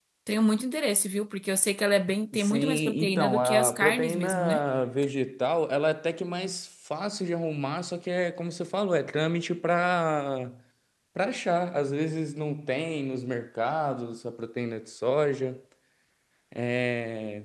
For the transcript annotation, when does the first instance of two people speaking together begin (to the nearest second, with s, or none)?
2 s